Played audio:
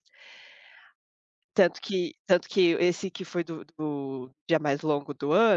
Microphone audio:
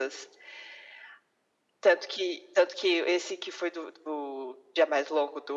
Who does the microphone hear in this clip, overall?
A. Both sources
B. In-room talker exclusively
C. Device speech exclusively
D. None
C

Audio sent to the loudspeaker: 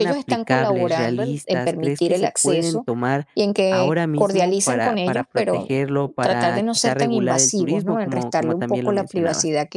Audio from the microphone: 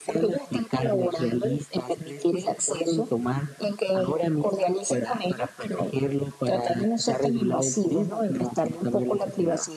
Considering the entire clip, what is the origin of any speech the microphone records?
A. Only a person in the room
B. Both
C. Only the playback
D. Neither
C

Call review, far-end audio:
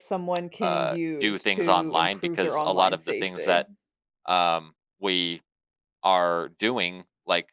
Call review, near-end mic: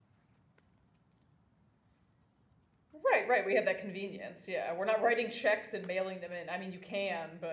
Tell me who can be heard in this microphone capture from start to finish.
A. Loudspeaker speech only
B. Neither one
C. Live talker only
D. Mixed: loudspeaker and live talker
C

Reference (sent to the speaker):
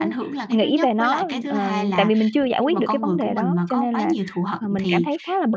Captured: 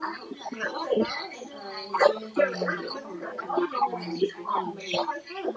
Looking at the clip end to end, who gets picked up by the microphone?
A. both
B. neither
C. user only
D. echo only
A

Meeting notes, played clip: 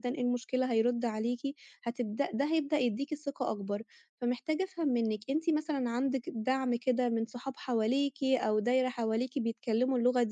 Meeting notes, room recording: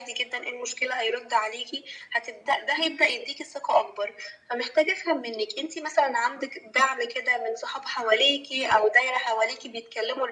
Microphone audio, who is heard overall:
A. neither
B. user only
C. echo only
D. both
C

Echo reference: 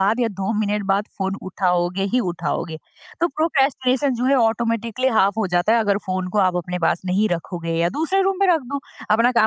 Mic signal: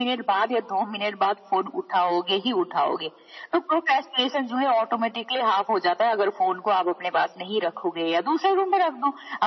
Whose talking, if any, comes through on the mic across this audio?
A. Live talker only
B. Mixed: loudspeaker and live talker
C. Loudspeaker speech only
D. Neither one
C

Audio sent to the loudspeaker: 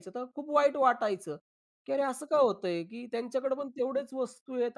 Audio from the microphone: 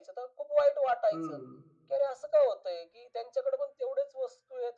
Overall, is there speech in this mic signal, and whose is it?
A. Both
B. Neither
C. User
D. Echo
A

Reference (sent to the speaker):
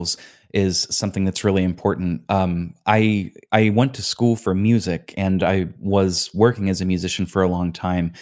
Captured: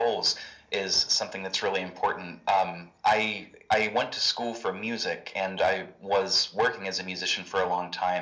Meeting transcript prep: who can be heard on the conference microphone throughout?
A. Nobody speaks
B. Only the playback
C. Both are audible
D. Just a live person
B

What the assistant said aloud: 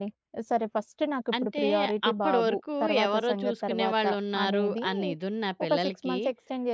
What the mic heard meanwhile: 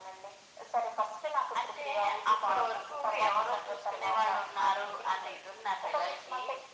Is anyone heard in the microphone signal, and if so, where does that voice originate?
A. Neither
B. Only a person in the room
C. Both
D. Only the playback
D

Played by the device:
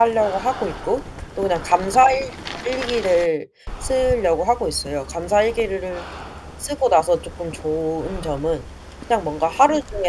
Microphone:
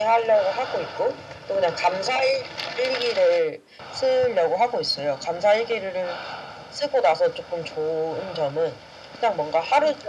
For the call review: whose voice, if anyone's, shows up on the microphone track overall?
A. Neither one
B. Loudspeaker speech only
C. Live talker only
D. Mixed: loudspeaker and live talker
B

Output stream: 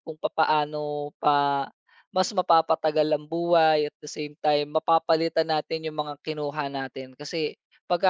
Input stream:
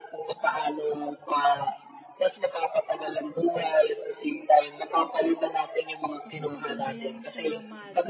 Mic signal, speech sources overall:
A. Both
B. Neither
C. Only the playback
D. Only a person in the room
A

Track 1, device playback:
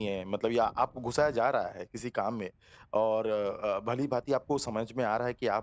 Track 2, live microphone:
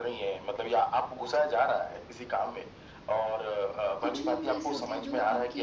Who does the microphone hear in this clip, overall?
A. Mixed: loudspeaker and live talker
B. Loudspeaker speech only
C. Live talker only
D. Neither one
A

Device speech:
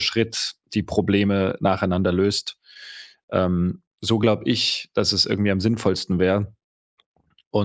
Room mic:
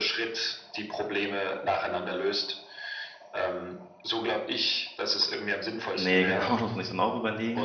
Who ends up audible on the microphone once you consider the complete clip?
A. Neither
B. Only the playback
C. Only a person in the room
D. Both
D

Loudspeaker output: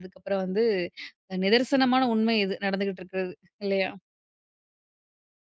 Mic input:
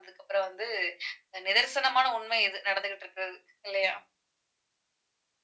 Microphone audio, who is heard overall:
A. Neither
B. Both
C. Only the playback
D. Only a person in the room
C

